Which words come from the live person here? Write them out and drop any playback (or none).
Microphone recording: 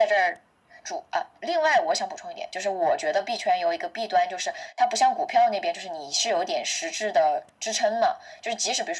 none